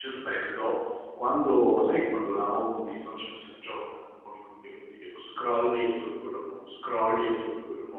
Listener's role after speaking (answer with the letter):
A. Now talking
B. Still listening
B